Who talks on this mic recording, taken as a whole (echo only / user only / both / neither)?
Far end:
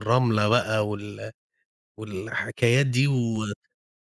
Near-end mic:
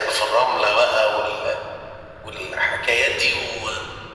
echo only